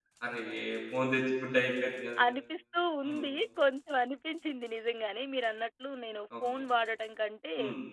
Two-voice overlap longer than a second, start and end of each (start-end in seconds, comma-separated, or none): none